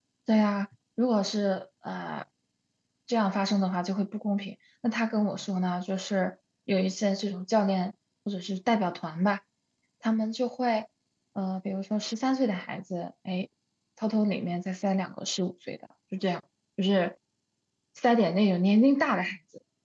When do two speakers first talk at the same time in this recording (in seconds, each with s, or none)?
none